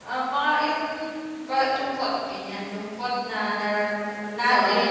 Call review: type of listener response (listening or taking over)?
listening